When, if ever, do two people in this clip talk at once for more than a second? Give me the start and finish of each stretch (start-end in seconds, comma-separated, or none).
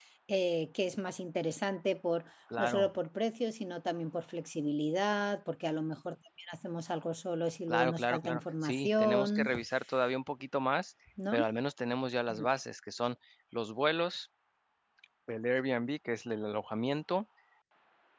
7.7-9.5